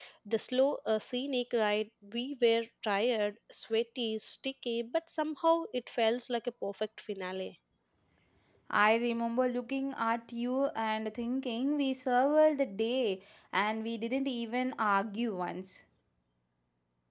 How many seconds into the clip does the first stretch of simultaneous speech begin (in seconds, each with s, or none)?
none